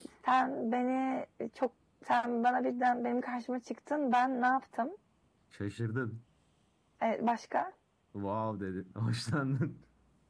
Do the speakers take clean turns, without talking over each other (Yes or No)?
Yes